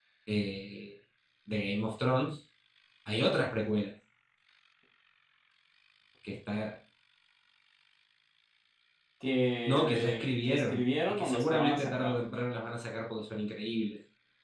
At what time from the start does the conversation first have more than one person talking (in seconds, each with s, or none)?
9.7 s